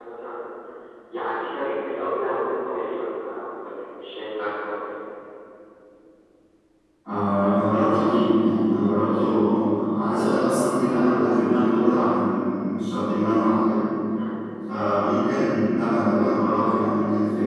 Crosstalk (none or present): none